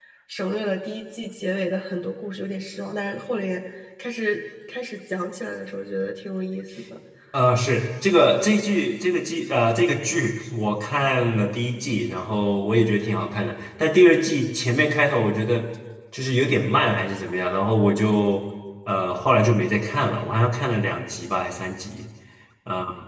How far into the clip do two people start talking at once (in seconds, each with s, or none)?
none